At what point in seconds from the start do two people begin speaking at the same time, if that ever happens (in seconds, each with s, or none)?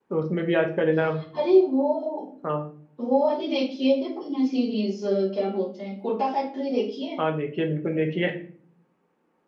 none